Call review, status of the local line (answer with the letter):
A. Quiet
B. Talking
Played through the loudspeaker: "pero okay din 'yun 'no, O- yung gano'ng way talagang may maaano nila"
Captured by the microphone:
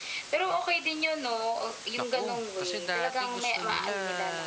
B